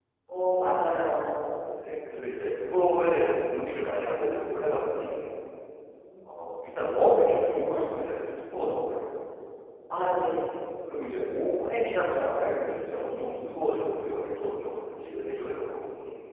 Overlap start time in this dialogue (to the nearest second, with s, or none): none